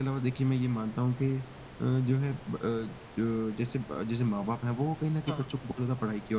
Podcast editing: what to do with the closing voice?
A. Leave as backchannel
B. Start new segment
A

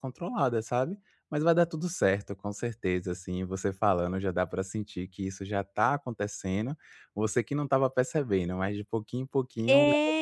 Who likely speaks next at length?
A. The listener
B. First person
A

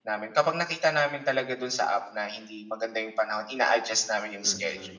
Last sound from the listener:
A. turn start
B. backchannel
A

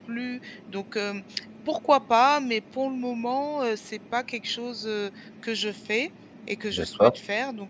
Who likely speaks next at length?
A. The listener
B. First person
B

